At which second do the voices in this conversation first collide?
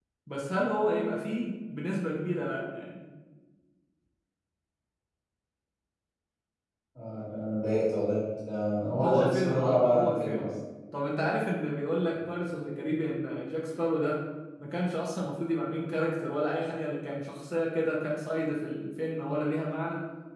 9.0 s

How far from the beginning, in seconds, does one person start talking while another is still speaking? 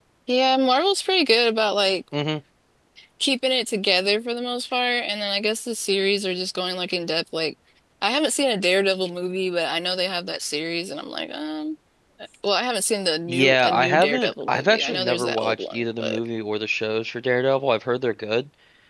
13.3 s

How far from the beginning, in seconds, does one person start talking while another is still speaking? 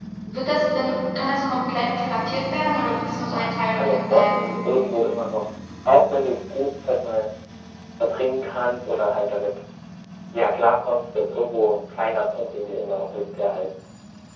3.3 s

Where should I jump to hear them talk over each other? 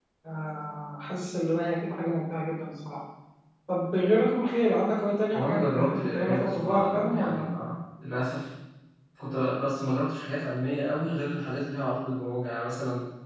5.3 s

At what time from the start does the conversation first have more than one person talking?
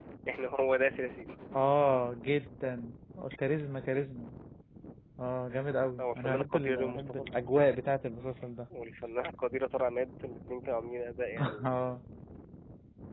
6.0 s

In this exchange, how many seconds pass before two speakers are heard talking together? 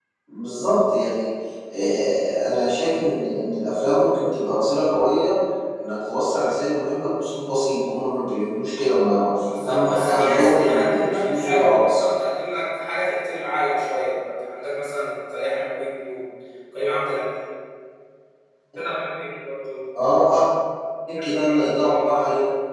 9.7 s

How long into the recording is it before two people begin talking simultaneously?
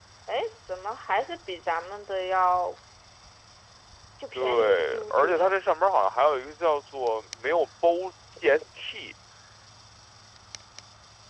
4.3 s

